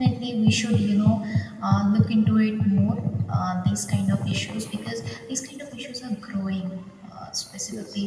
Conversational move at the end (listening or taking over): listening